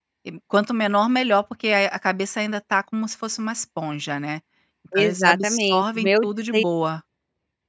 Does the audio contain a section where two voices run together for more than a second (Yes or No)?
Yes